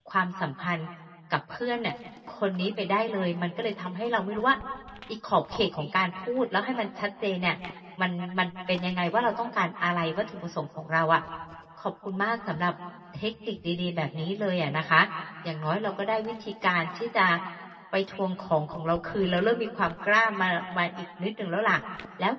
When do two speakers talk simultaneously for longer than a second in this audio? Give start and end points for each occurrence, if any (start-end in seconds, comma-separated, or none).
none